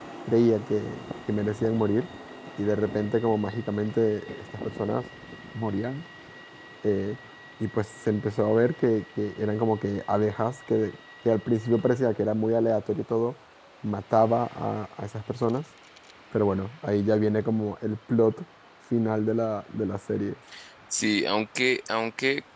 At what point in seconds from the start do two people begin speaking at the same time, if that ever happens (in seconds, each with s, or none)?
none